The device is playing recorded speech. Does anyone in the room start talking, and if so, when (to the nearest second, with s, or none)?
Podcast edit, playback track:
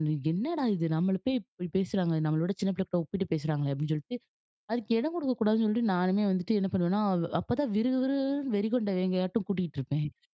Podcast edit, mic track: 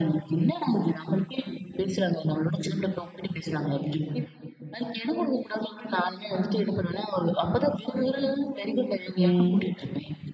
9 s